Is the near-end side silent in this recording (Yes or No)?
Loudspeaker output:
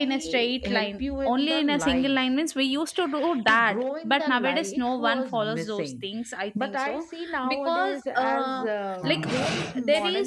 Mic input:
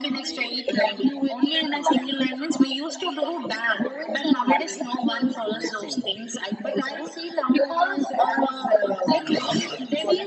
Yes